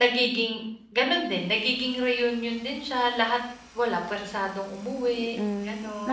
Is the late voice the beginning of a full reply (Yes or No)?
Yes